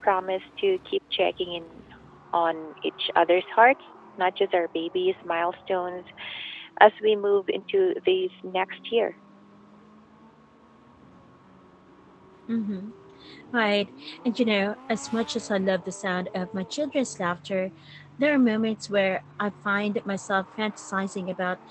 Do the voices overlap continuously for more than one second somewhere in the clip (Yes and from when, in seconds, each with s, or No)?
No